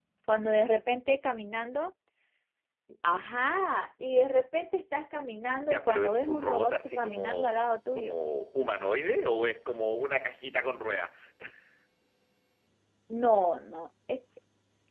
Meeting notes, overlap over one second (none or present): present